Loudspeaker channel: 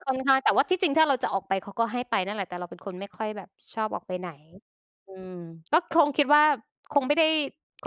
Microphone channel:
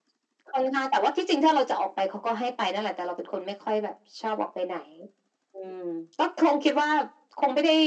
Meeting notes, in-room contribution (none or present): none